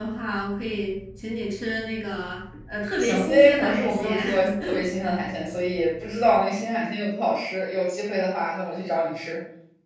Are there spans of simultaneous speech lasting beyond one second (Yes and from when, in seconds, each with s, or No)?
Yes, from 3.0 s